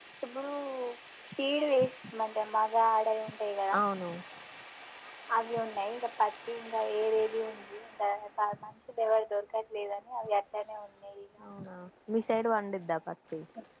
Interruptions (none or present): none